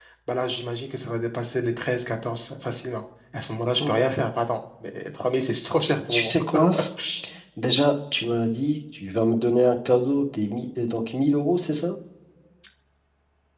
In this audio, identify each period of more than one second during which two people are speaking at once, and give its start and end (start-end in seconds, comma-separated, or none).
none